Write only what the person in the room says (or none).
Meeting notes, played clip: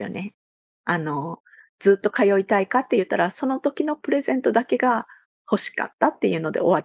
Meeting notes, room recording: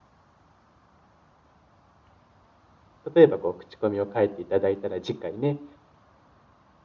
例えばこう口コミを書いていただいたら、次回ね、